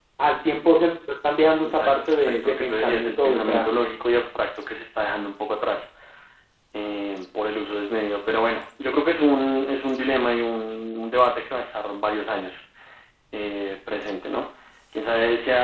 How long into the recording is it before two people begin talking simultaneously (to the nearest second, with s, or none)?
2 s